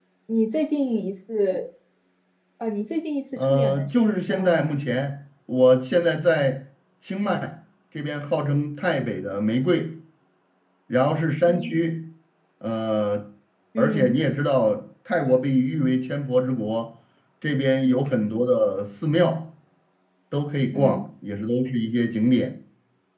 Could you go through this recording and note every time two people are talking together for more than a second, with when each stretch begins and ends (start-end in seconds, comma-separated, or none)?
3.4-4.6